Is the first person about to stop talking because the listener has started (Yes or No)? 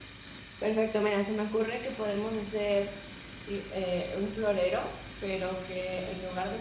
No